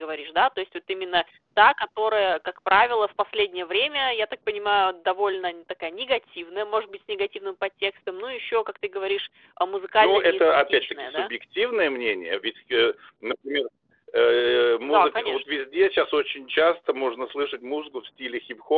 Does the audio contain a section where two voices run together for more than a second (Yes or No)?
Yes